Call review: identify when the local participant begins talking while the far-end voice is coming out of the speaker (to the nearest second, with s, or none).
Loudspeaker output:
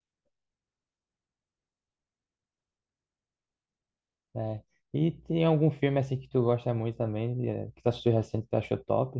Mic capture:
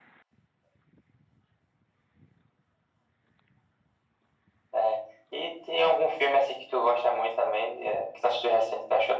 none